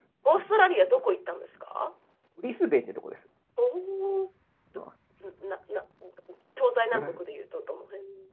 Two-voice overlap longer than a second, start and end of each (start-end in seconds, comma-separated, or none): none